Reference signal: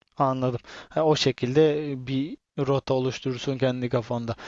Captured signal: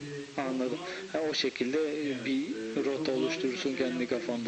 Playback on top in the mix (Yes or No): Yes